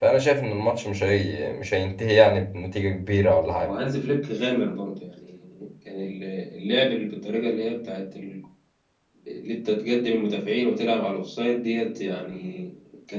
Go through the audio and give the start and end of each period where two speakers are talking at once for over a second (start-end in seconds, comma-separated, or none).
none